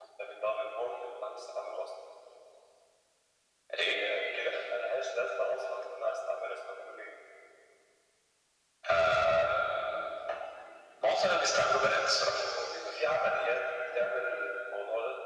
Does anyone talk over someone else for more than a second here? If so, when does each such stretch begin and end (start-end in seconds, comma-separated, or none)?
none